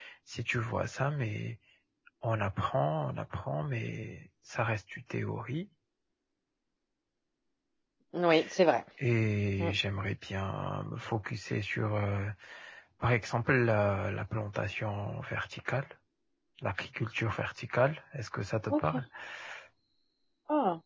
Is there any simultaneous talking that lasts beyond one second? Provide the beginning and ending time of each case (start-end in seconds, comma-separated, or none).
none